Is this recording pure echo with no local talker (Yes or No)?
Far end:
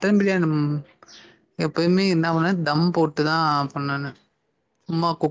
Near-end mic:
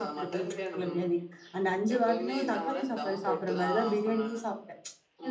No